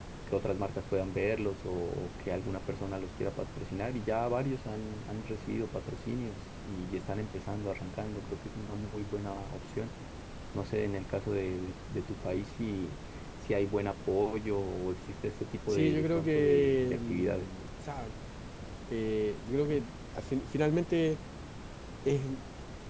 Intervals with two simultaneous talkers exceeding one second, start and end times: 15.7-17.5

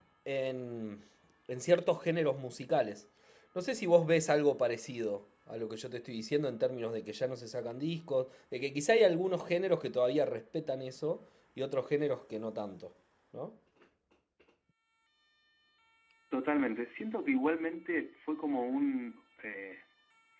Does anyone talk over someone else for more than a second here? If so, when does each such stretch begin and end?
none

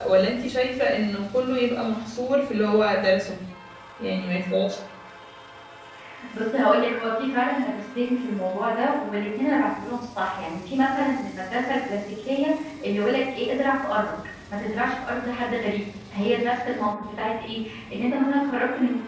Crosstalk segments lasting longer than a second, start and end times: none

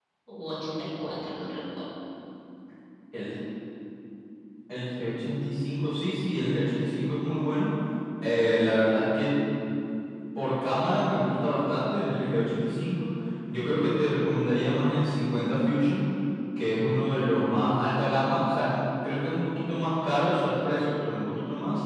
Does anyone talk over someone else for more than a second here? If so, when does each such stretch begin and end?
none

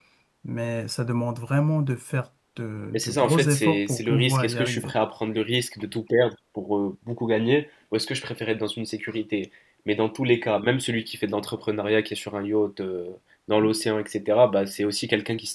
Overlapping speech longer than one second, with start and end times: 2.9-4.9

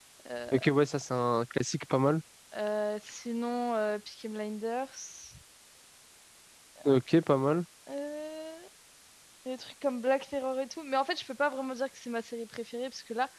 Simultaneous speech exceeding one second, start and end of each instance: none

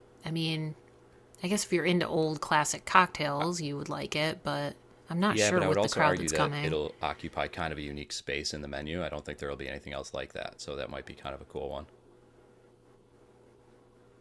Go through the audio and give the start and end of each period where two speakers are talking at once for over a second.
5.3-6.8

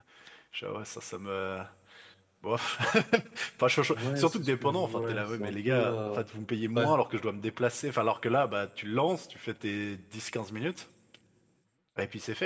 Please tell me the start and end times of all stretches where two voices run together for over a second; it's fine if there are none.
3.9-6.2

